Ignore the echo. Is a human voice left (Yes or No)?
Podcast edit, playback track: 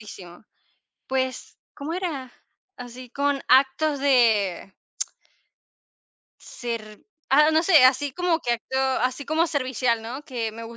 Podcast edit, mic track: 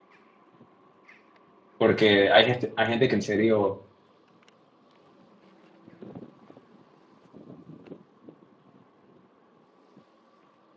Yes